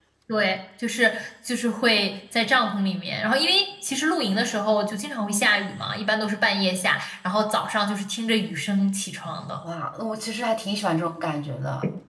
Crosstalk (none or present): none